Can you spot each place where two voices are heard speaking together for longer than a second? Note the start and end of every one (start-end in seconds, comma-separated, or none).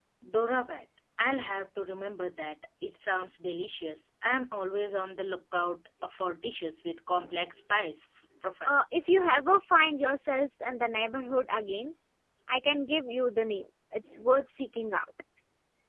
none